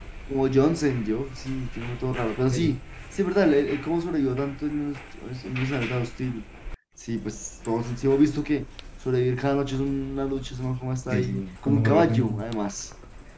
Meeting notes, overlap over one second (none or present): present